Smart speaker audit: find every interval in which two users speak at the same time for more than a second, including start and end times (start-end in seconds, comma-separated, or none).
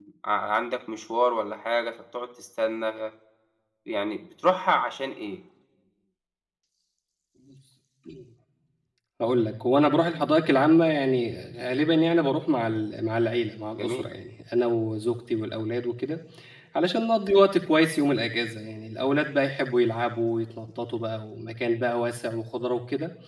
none